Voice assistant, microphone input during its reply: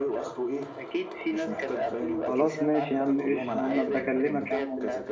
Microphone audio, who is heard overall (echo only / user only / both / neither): both